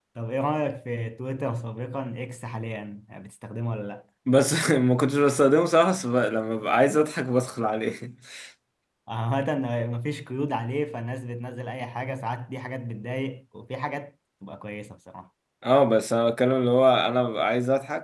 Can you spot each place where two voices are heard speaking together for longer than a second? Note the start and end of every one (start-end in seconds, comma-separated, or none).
none